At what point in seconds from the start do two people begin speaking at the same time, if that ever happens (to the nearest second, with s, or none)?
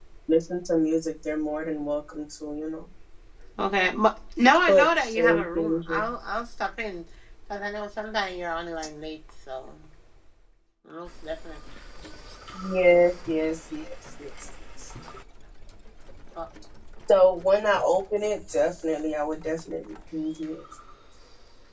5 s